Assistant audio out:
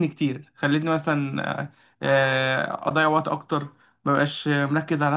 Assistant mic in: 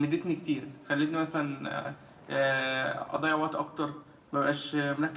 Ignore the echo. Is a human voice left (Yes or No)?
No